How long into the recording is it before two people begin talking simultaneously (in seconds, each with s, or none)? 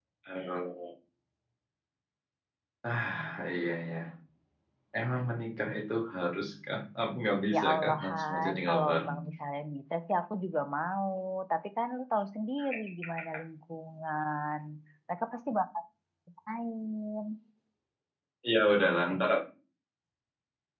7.5 s